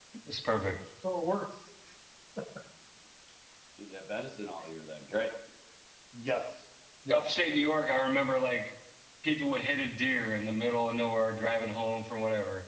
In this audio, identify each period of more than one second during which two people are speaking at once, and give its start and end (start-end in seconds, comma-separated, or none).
none